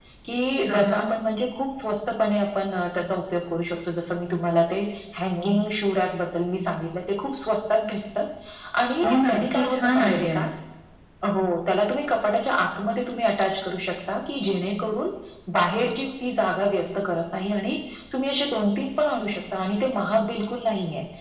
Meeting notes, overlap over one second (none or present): present